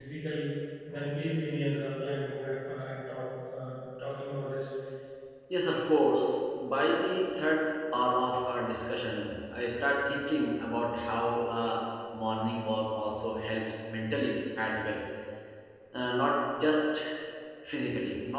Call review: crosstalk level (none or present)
none